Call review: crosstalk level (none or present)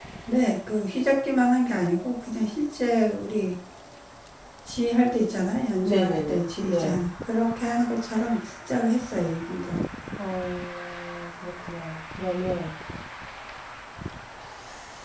present